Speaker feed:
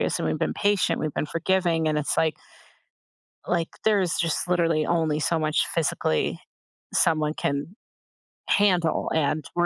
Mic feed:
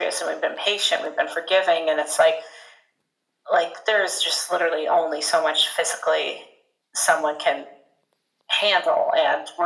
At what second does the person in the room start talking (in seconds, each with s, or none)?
none